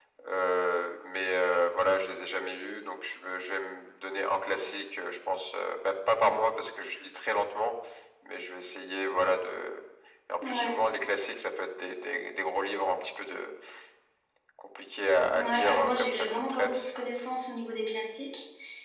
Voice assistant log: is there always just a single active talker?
No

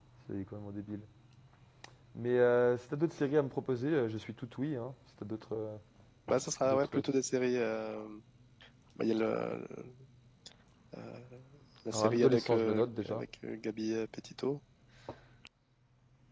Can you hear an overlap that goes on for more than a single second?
Yes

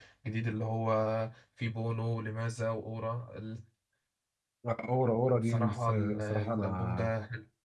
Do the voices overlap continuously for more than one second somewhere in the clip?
Yes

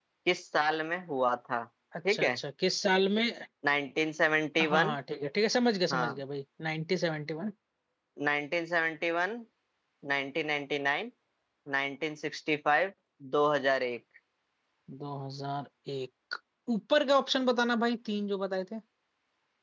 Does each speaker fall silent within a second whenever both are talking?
Yes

